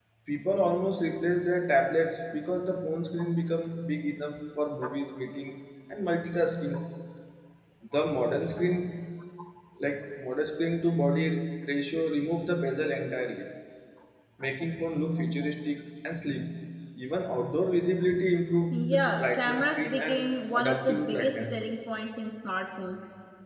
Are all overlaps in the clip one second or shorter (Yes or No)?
No